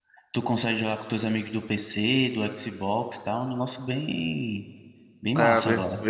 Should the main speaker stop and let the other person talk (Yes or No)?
Yes